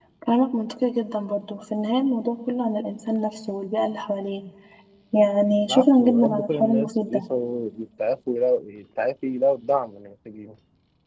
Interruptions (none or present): present